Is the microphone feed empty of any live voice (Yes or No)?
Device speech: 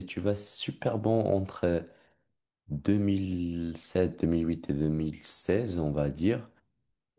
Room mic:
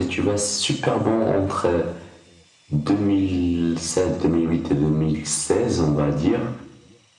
Yes